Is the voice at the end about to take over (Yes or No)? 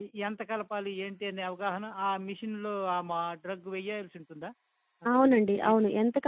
Yes